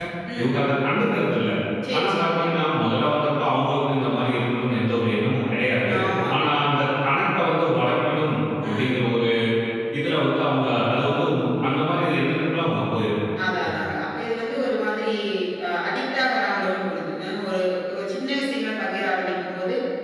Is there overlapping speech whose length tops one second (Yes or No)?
No